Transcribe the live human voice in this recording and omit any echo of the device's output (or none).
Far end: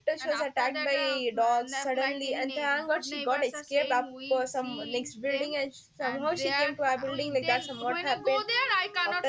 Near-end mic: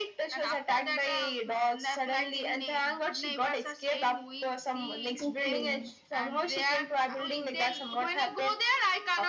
Okay.